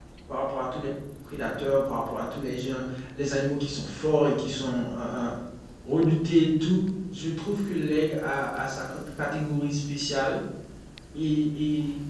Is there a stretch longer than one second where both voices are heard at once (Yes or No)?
No